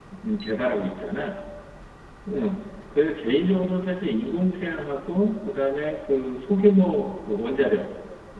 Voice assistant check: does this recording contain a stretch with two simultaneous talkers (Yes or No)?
No